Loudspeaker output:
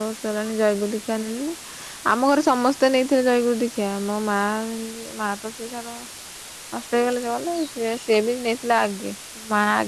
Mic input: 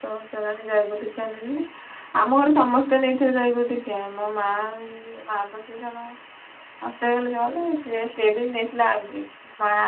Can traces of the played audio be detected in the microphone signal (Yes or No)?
Yes